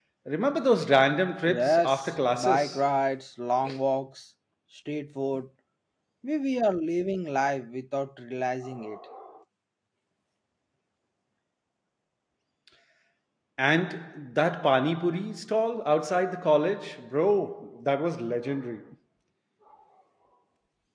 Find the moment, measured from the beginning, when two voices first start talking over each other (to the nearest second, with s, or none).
1 s